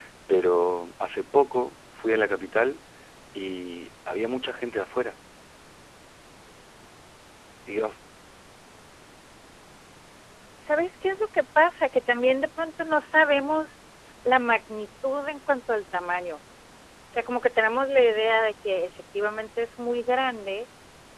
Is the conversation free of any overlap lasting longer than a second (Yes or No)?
Yes